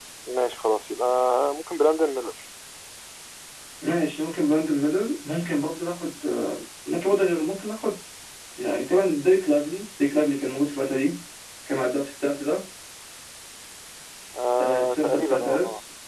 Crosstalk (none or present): present